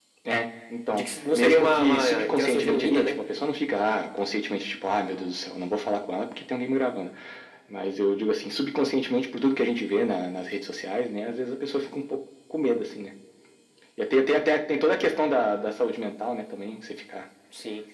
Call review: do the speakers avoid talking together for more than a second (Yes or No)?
No